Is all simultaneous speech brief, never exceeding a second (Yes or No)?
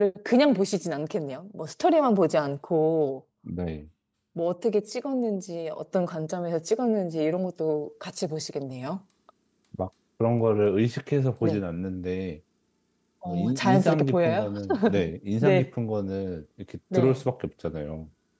No